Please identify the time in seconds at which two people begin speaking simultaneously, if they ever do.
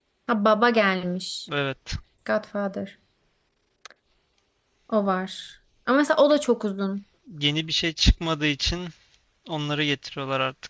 none

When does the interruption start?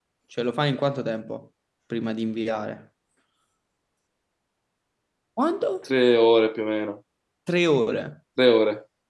none

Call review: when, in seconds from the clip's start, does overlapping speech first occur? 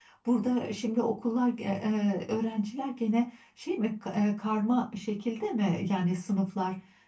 none

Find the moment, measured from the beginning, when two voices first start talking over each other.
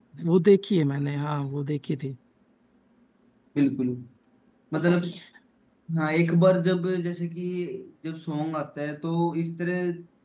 none

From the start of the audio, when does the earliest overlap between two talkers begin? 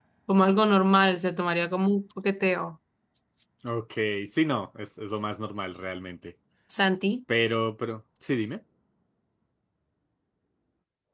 none

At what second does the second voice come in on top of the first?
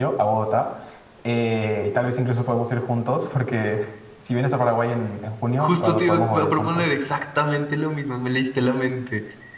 6 s

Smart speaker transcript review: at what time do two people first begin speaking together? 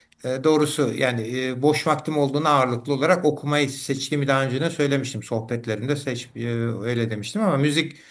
none

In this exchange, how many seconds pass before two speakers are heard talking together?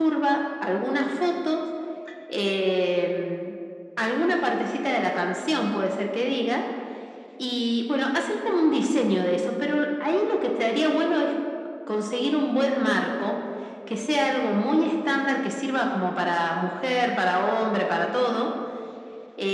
none

